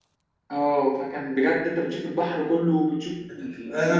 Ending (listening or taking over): taking over